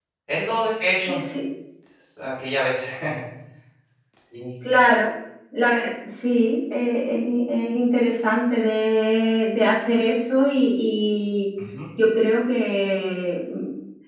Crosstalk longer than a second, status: none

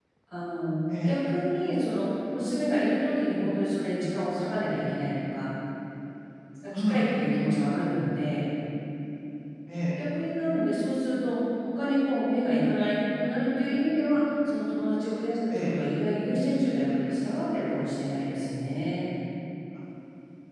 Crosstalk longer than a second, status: none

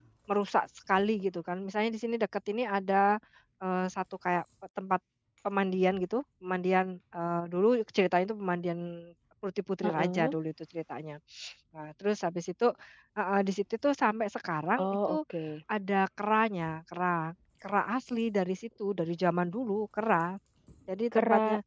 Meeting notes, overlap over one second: none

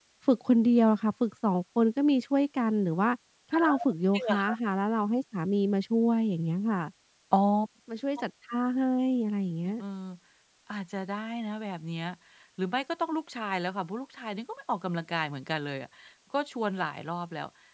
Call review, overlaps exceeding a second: none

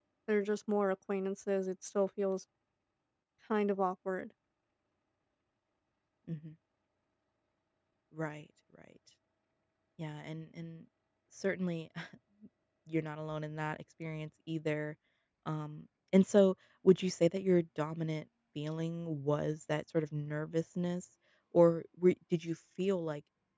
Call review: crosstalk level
none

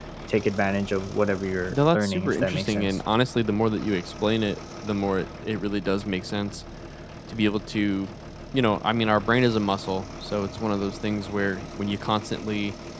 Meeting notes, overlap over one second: present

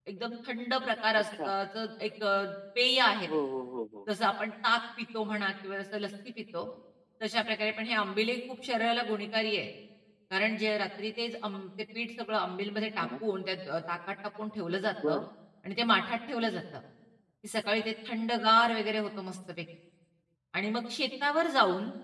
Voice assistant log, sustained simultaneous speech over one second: none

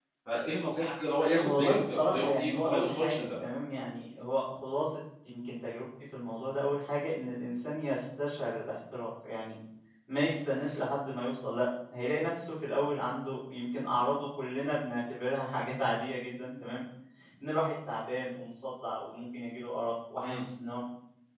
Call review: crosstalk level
present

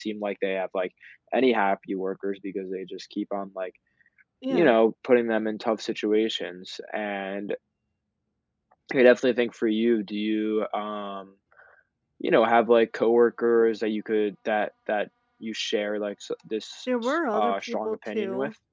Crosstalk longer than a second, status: present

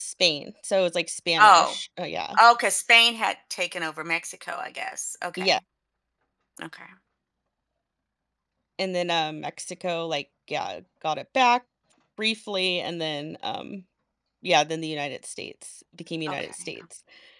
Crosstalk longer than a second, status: none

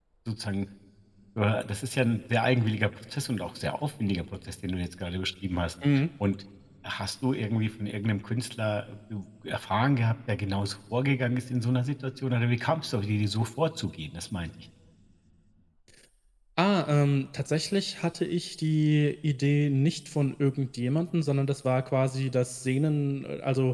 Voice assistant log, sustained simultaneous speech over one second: none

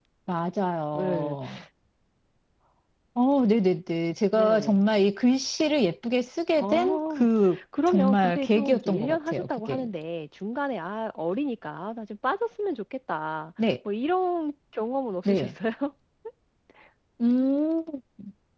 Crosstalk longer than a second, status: present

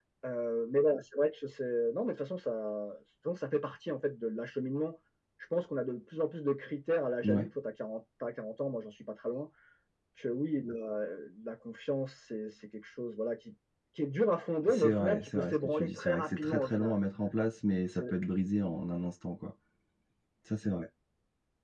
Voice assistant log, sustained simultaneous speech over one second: present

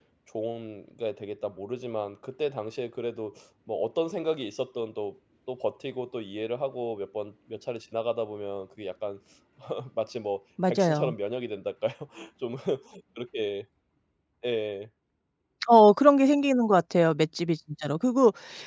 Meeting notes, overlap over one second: none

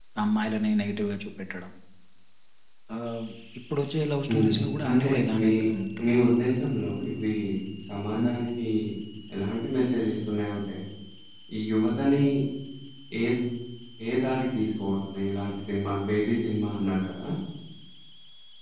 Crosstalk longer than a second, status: present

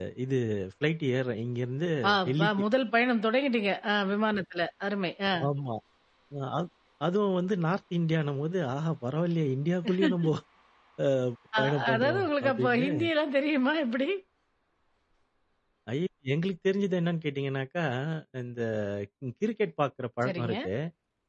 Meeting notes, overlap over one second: present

